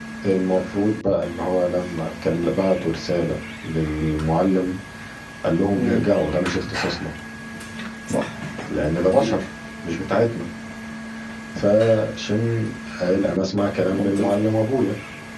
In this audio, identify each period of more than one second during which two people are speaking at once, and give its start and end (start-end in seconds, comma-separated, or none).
none